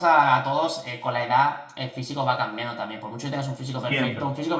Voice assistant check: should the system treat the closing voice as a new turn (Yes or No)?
No